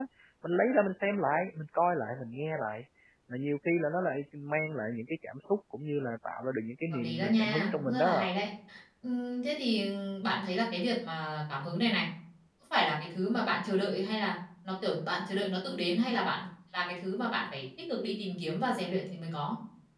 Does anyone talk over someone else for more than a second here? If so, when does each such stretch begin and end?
6.9-8.2

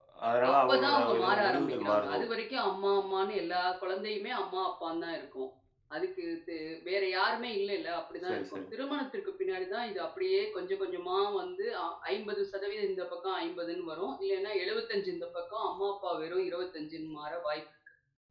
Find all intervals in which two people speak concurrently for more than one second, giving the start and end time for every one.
0.5-2.2

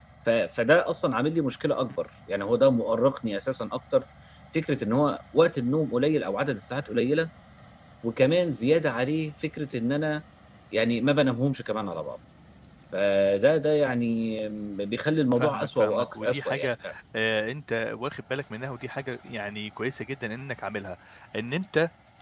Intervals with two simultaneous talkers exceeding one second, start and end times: 15.3-16.7

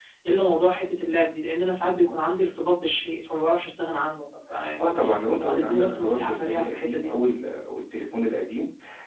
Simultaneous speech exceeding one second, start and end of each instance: 5.4-7.1

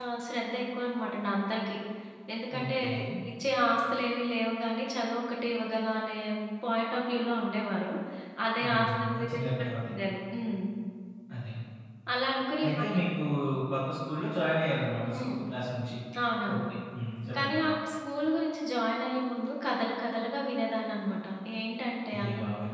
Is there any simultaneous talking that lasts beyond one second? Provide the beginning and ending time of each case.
8.7-9.9

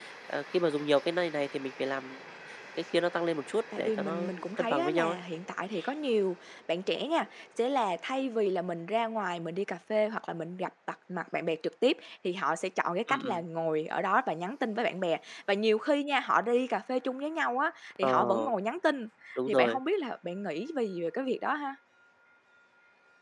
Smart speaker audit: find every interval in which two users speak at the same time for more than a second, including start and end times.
3.8-5.2

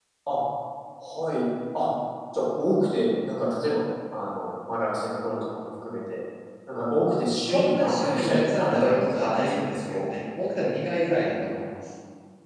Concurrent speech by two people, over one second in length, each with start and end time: 7.4-10.0

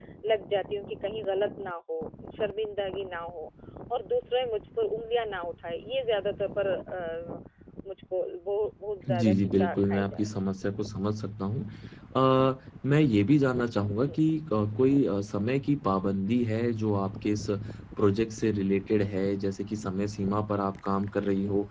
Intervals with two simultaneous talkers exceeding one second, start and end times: 9.1-10.3

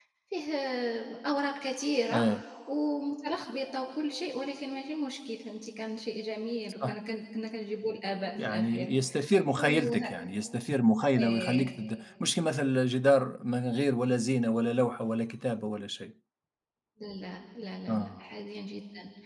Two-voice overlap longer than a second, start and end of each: none

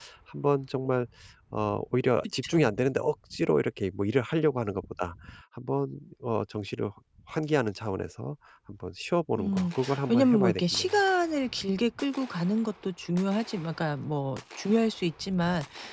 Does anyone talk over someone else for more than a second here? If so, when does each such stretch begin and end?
9.4-10.9

